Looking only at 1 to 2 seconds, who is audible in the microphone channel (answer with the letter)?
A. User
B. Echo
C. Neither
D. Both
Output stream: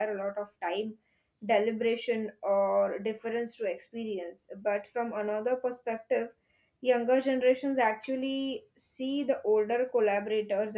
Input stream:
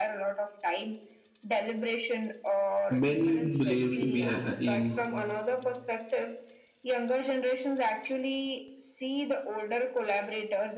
B